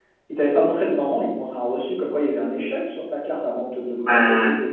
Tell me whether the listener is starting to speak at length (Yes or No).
Yes